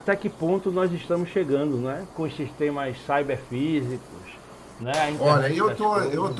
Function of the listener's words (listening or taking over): taking over